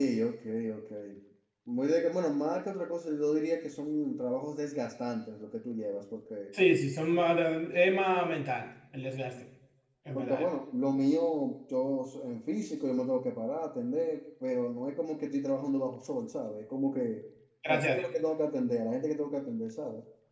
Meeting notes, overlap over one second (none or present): none